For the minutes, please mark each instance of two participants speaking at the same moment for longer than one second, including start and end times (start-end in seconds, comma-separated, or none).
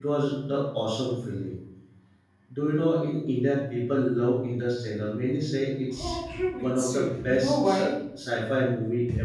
6.6-7.9